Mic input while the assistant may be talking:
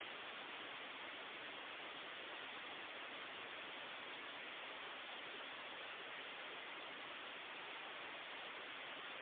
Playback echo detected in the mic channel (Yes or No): No